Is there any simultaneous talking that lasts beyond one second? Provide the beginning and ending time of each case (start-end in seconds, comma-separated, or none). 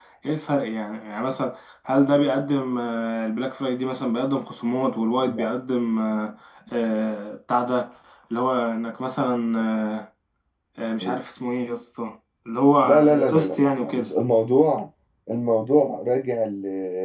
12.8-14.1